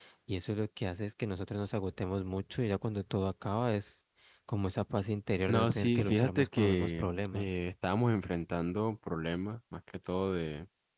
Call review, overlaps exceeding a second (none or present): present